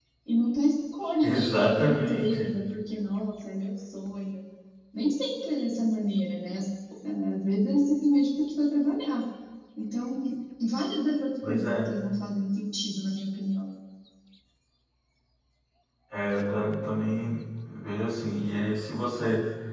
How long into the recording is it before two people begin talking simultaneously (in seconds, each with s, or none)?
1.2 s